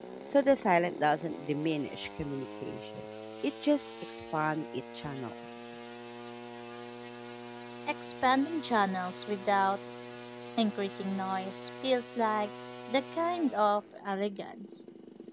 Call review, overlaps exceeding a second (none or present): none